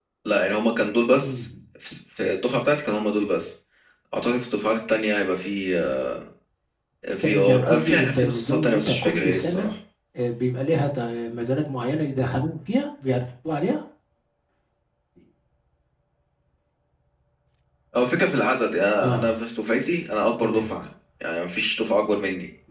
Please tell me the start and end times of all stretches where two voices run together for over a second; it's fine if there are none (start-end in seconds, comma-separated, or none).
7.2-9.7